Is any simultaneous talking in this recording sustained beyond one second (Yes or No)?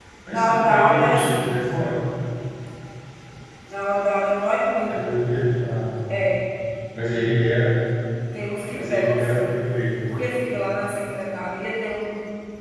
Yes